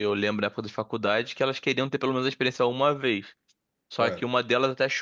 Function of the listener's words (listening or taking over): listening